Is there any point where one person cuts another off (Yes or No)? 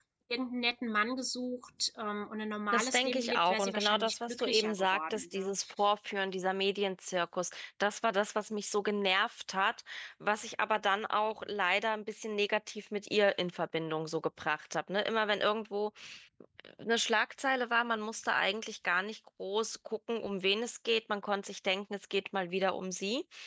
Yes